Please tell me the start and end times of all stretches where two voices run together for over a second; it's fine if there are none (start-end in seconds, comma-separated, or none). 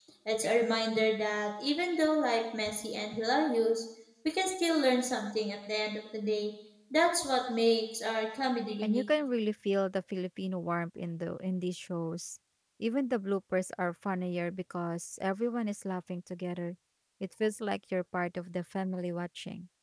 none